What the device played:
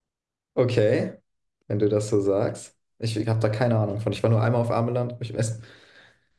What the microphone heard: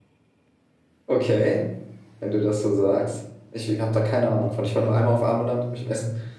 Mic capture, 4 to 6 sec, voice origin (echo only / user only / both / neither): echo only